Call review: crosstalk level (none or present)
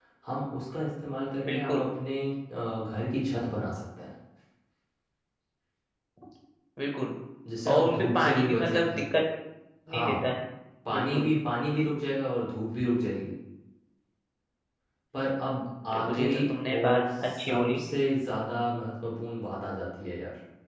present